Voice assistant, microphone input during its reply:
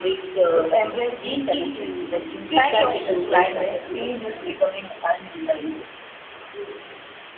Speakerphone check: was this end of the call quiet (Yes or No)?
No